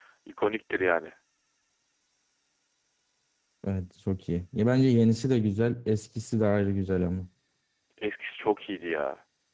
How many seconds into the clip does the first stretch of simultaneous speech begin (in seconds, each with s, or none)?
none